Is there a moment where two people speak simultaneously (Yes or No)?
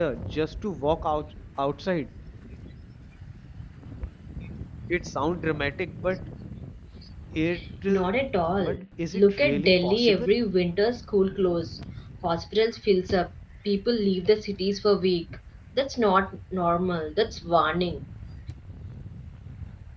Yes